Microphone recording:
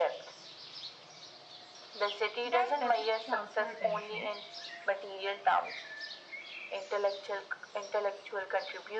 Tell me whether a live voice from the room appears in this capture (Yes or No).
Yes